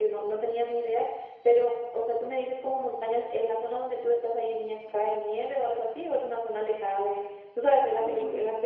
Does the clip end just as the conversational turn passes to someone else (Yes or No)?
No